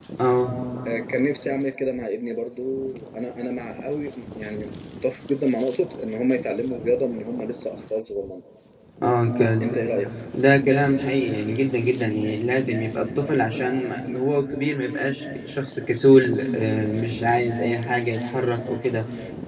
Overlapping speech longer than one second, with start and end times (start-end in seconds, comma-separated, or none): none